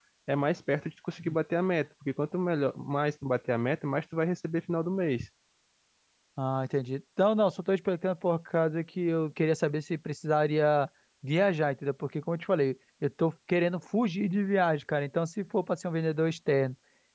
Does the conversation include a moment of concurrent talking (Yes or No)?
No